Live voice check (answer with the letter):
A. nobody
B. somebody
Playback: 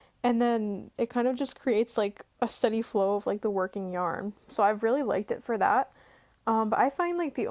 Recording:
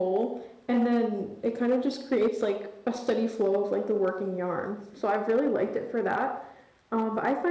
A